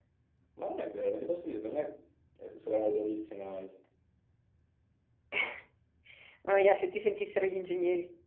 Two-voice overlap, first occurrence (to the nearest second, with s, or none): none